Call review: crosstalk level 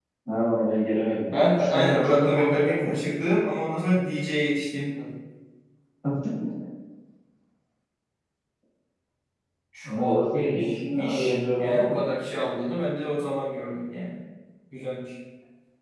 present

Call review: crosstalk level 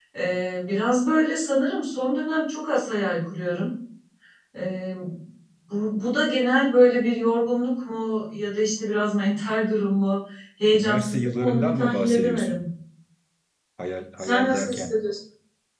present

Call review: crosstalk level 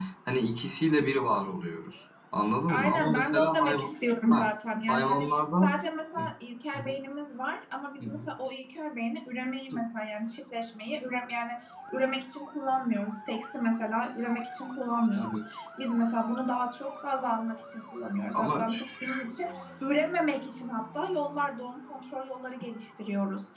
present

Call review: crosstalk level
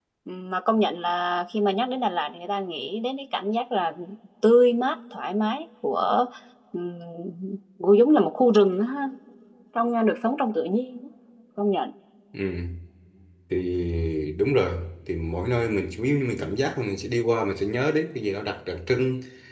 none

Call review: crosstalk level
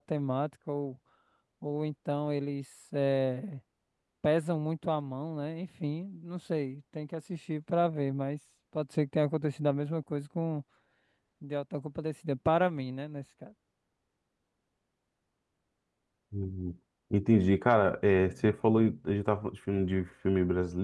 none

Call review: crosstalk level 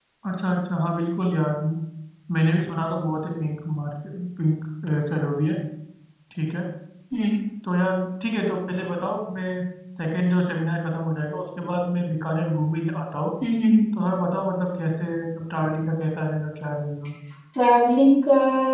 none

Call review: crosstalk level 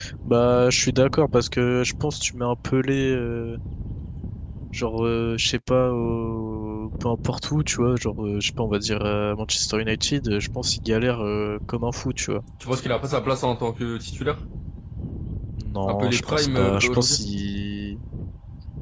present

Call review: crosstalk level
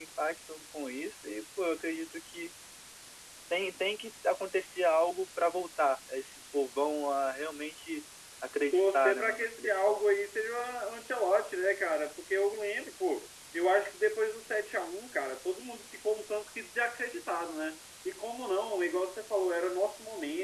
present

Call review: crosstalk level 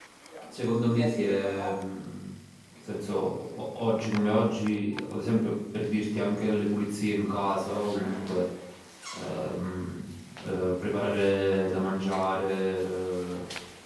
present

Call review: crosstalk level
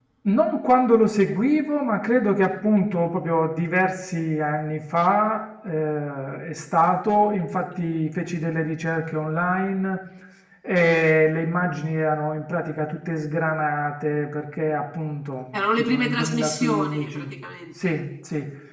present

